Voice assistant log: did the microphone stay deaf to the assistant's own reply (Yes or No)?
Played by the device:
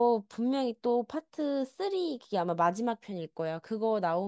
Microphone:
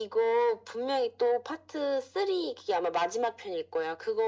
No